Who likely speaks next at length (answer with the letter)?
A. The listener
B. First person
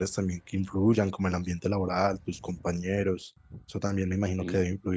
B